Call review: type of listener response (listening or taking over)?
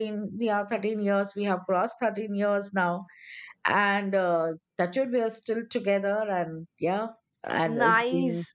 taking over